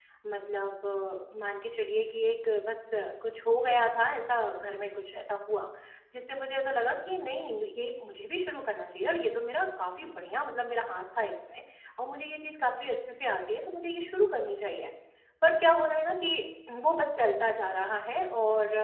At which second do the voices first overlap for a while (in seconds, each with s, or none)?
none